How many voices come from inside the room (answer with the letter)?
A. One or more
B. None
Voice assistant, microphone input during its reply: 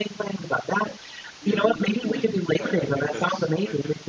A